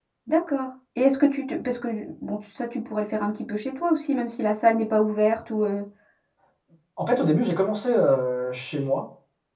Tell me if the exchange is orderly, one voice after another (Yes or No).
Yes